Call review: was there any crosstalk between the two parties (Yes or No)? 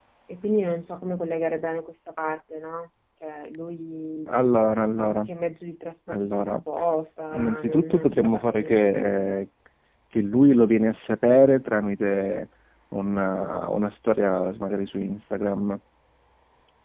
Yes